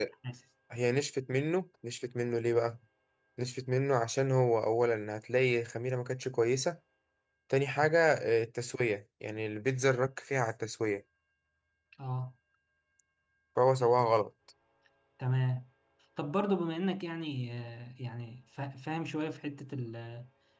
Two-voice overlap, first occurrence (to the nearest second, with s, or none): none